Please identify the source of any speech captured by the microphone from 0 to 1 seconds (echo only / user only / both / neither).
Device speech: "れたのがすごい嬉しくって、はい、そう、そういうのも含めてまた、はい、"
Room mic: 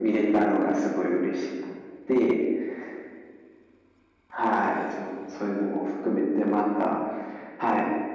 echo only